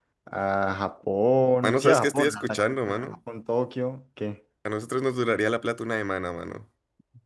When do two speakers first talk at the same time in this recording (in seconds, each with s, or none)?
1.6 s